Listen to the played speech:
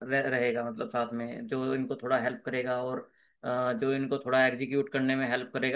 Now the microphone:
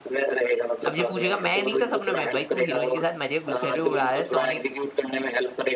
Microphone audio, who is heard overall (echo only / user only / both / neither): both